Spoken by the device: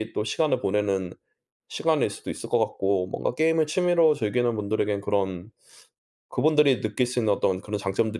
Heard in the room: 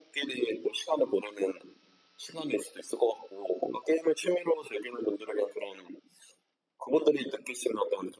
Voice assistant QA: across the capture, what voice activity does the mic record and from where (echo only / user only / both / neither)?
echo only